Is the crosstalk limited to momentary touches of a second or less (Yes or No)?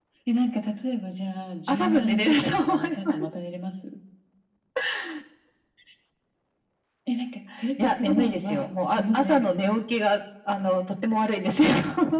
No